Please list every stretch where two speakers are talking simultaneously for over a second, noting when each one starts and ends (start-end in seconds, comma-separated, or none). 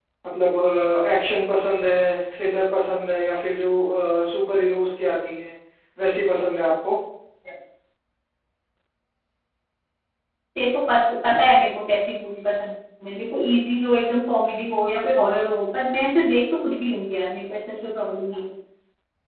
none